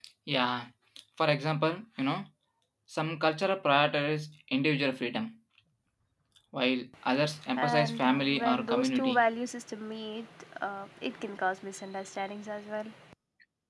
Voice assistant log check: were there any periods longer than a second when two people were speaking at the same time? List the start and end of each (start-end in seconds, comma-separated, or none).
7.6-9.2